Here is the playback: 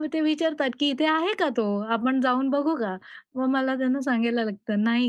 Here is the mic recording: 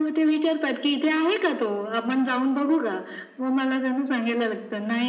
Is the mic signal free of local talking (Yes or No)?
Yes